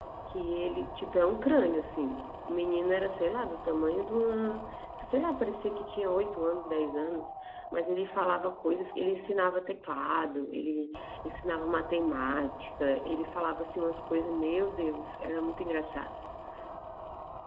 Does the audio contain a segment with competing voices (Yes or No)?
No